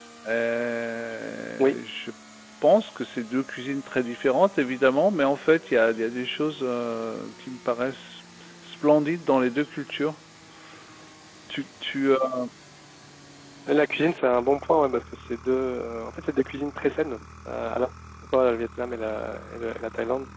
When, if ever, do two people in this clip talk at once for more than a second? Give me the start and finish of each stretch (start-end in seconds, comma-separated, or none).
none